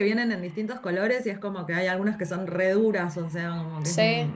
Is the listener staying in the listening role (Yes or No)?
No